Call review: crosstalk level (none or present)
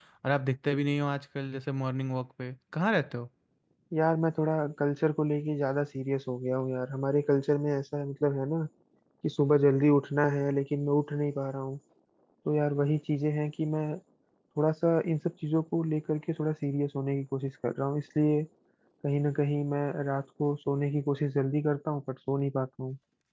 none